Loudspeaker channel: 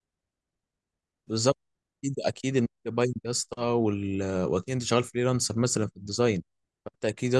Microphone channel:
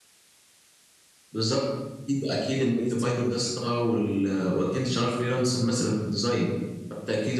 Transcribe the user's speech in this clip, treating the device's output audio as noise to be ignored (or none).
اكون بقيت سينيور فيها